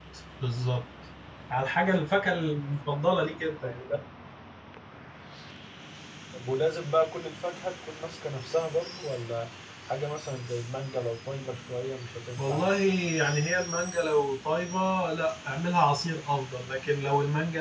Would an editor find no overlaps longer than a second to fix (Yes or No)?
Yes